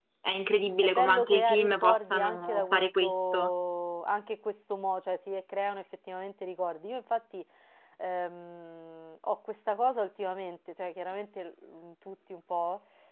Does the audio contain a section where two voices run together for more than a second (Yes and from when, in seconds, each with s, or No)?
Yes, from 0.8 s